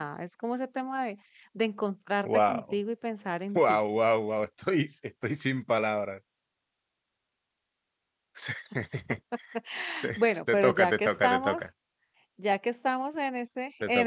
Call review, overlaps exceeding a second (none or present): present